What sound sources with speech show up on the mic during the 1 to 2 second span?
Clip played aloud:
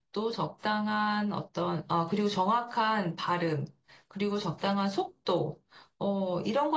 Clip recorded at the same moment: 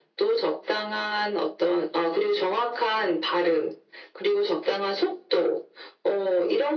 echo only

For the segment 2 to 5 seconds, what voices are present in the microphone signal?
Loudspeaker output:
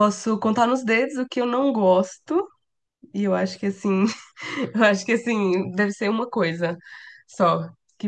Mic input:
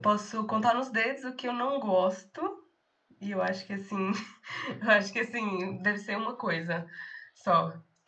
echo only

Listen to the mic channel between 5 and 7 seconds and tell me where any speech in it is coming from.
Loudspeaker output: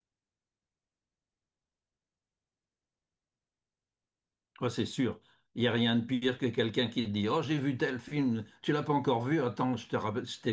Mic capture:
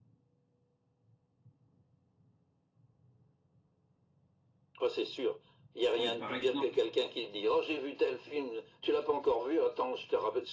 both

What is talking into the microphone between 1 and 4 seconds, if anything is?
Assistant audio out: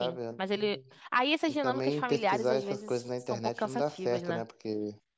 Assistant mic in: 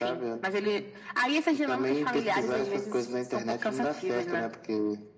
echo only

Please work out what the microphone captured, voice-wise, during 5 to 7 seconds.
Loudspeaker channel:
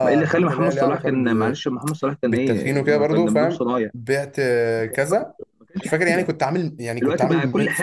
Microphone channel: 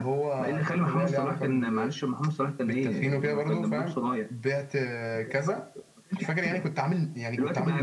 echo only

